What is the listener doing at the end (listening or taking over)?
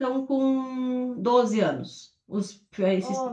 taking over